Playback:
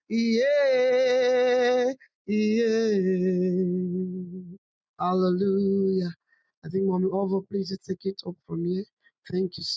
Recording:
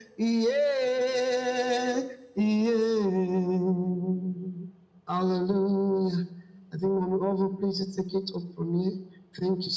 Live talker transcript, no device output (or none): none